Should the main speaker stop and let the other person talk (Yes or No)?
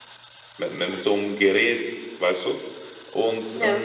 No